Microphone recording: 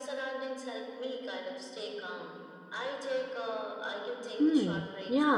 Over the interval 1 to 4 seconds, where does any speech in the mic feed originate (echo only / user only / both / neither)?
echo only